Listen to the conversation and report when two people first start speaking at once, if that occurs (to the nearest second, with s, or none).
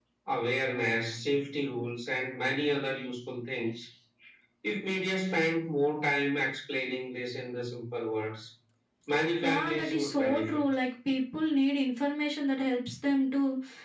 9 s